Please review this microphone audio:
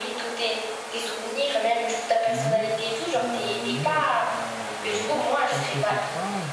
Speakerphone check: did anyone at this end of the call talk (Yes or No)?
Yes